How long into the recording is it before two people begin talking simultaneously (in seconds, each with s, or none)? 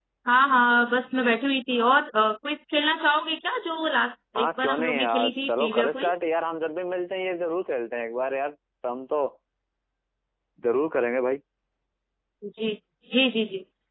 4.4 s